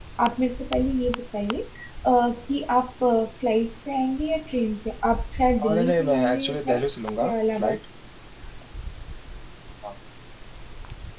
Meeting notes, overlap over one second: present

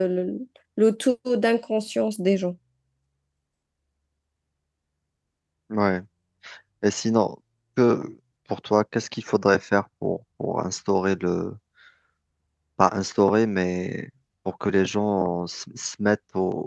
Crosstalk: none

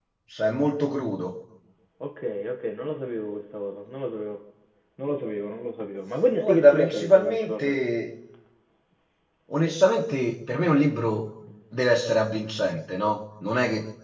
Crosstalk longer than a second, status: present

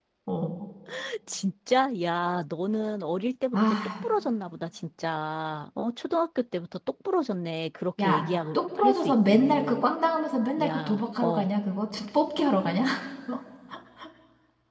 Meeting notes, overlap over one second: present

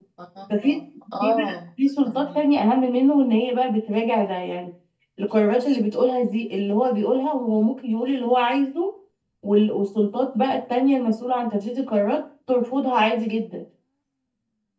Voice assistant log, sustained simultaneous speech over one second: none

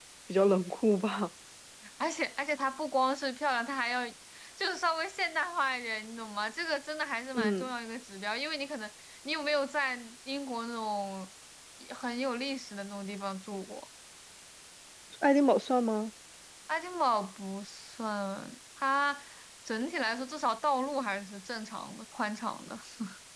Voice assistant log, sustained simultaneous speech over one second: none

